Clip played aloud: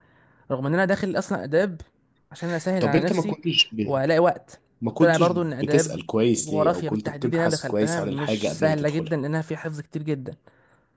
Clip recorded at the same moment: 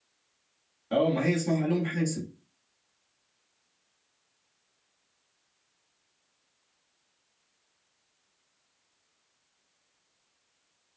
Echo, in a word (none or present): none